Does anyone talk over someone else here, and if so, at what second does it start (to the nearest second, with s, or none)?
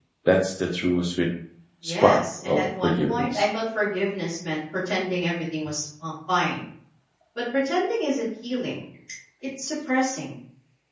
2 s